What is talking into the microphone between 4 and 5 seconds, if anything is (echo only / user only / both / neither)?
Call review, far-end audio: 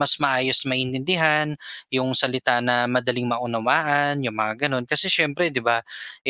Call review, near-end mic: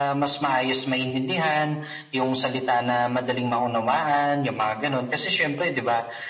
echo only